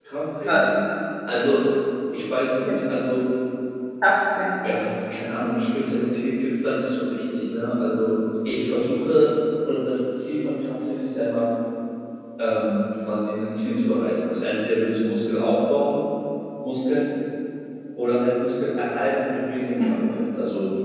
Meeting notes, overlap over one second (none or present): none